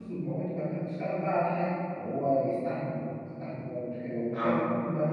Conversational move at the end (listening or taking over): listening